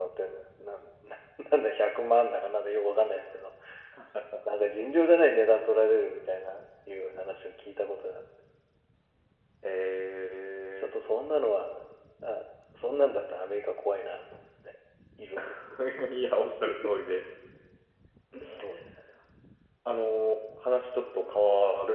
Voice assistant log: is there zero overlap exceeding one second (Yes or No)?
Yes